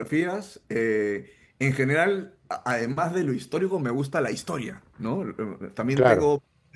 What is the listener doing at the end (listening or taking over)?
listening